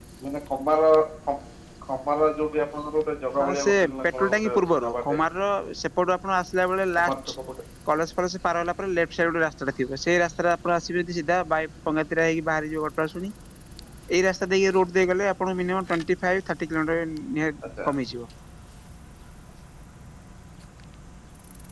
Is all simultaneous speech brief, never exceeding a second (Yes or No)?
No